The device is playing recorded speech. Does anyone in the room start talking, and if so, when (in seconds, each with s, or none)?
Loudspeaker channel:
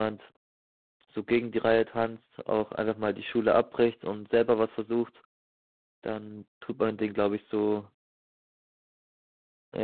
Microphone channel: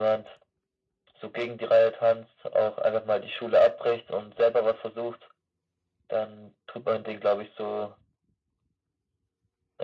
none